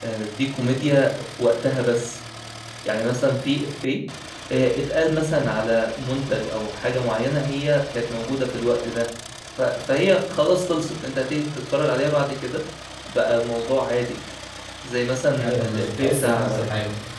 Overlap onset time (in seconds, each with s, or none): 15.4 s